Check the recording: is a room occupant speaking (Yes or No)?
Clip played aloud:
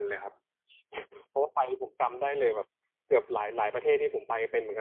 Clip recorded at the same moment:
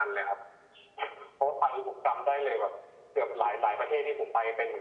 No